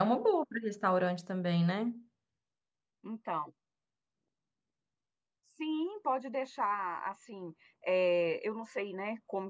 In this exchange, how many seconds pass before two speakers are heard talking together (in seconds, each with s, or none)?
none